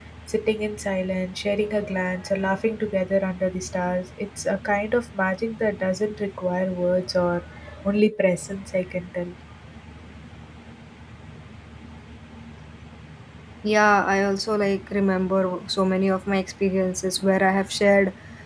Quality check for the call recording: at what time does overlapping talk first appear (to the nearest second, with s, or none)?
none